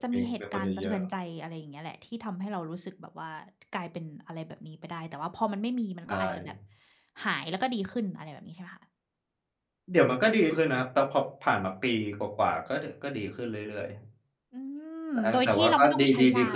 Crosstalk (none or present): present